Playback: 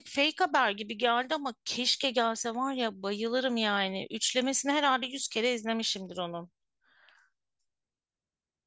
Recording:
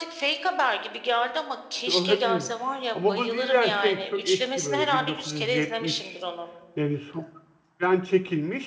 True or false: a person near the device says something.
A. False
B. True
B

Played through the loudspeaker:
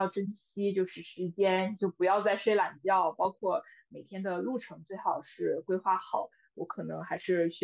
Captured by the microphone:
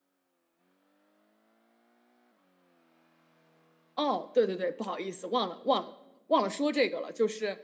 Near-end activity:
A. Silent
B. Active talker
B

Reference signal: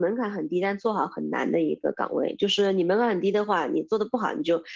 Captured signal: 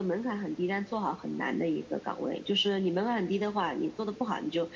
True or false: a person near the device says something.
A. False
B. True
A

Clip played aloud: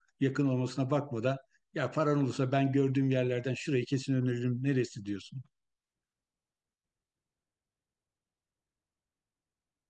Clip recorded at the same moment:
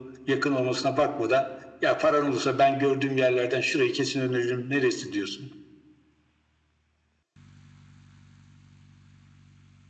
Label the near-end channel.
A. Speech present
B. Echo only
B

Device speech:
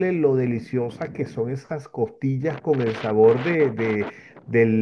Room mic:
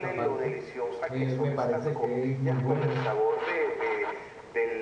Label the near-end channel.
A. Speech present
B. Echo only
A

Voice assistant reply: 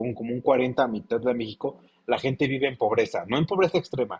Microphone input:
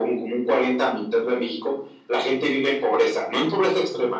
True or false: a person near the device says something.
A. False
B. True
A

